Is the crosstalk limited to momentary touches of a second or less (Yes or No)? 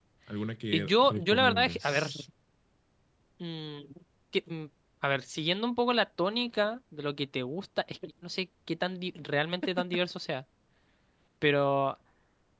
No